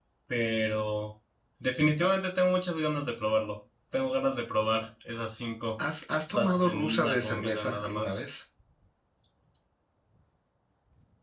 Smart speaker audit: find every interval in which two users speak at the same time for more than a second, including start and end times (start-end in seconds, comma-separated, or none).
6.3-8.2